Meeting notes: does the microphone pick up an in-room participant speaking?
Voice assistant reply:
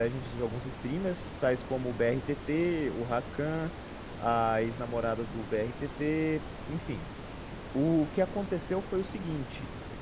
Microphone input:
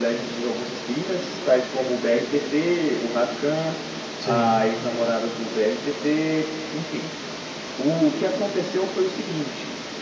Yes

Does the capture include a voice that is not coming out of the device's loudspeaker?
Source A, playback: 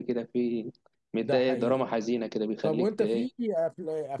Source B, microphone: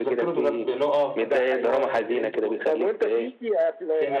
Yes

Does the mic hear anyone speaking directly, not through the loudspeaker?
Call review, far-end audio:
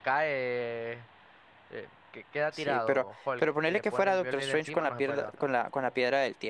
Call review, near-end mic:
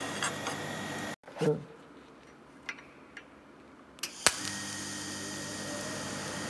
No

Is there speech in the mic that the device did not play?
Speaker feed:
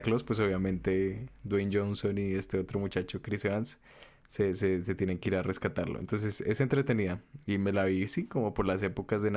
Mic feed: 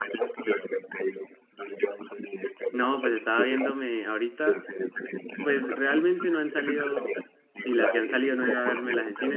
Yes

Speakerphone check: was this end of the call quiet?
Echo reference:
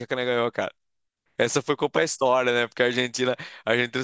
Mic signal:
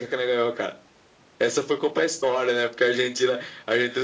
Yes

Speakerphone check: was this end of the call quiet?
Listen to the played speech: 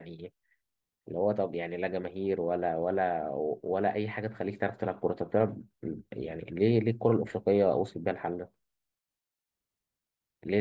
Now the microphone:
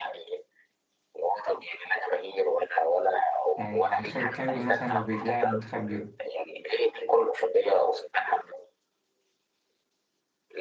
No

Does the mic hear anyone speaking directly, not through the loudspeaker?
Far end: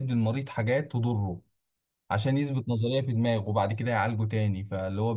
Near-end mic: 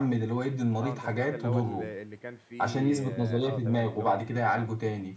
Yes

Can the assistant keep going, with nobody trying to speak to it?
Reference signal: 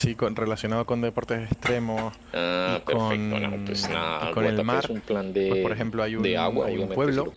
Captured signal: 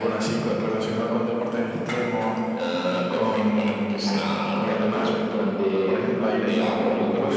No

